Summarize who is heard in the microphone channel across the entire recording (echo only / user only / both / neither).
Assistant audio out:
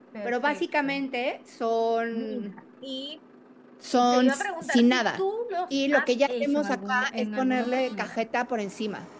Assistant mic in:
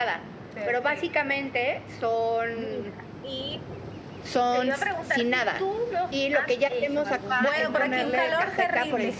both